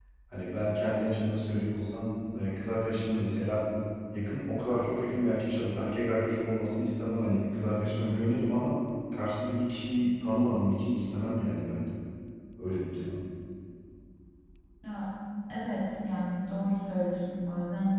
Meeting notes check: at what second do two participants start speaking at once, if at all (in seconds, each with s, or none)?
none